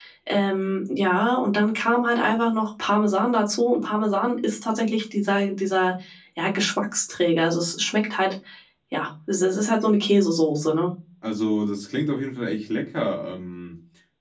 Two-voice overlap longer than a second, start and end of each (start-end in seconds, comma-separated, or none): none